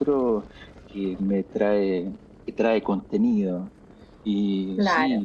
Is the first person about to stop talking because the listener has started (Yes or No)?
No